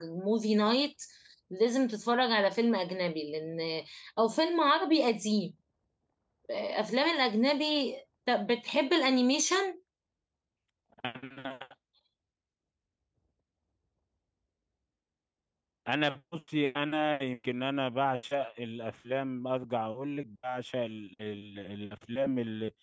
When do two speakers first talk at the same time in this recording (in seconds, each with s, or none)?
none